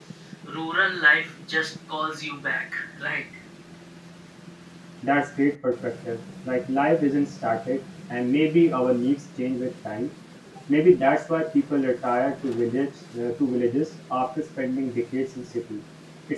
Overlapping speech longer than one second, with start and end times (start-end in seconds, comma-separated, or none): none